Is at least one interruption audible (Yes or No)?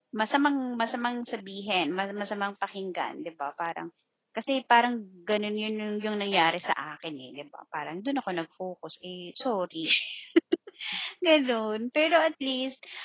No